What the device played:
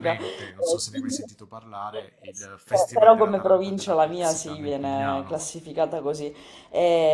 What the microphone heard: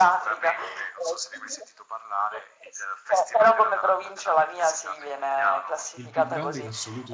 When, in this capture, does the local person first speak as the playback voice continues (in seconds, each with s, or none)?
5.9 s